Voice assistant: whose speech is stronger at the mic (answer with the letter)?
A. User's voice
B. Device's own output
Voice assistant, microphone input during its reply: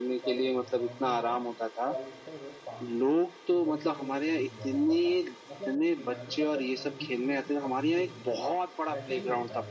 B